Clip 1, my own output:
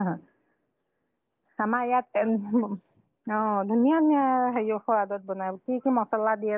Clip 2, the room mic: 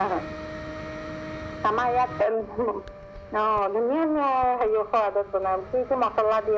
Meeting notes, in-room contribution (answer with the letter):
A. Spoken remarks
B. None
B